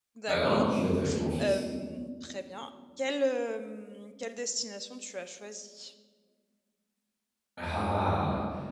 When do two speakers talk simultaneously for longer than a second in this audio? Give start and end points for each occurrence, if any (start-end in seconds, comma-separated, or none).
none